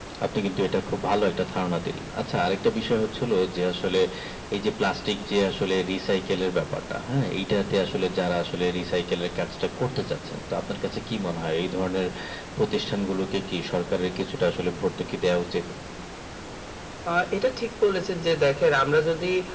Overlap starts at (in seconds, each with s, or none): none